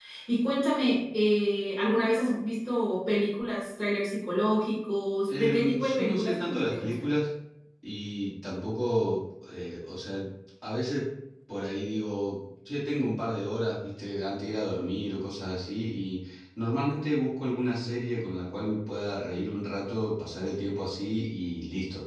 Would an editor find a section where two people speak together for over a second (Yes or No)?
Yes